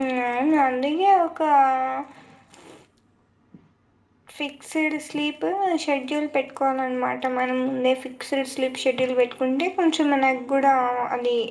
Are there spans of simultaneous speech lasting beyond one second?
No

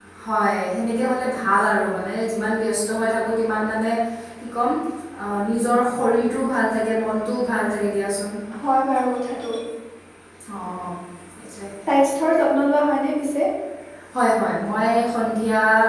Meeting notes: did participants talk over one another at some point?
No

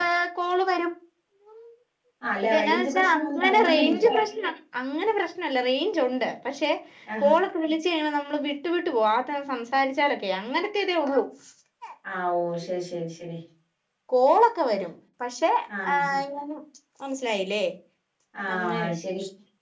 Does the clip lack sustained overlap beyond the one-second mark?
No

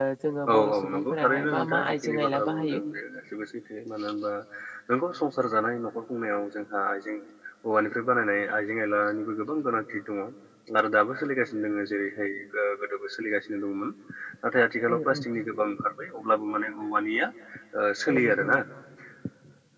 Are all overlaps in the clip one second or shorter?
No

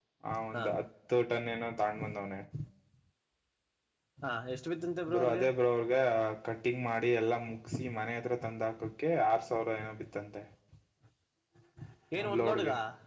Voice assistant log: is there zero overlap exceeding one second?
Yes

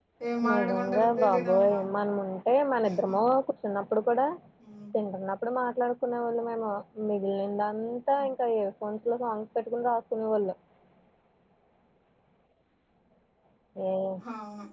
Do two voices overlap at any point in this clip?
Yes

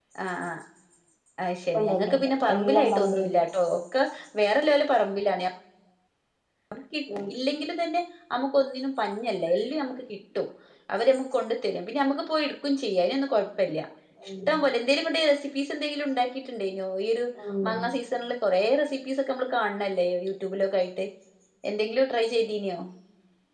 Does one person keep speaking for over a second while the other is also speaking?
Yes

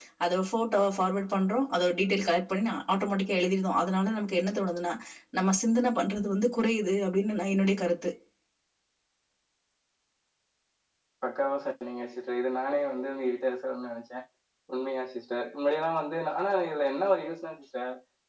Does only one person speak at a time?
Yes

